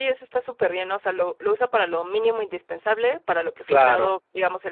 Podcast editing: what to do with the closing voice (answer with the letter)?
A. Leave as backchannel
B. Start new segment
A